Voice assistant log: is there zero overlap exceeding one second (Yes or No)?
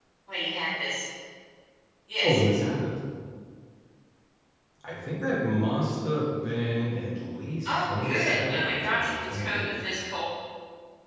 No